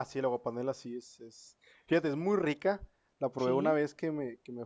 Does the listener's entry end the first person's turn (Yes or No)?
No